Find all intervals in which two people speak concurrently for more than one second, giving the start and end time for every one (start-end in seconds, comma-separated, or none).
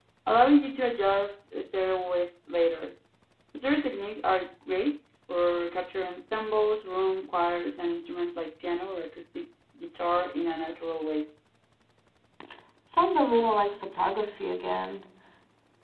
none